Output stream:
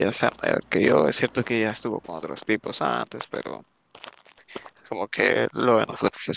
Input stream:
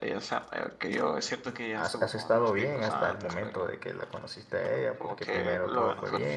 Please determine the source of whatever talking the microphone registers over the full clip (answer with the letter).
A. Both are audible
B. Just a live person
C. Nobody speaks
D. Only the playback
A